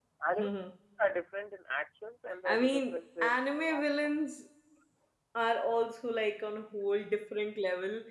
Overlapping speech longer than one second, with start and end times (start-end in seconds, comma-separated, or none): 2.4-3.8